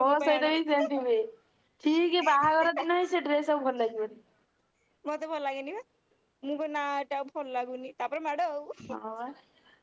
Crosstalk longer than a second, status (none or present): none